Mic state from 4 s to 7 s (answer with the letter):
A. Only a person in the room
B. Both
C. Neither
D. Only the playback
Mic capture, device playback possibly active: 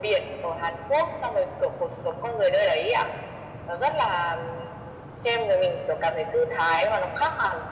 D